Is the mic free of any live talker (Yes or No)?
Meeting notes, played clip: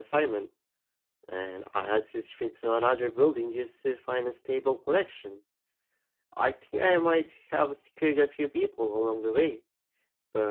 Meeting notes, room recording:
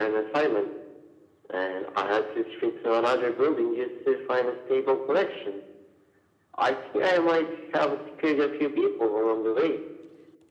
Yes